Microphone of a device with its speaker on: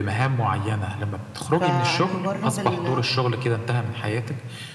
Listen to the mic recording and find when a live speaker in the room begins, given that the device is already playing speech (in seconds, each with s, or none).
1.5 s